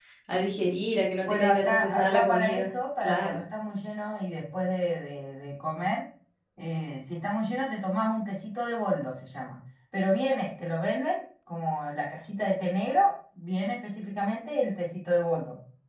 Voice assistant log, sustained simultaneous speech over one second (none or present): present